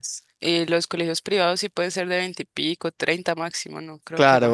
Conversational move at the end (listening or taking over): taking over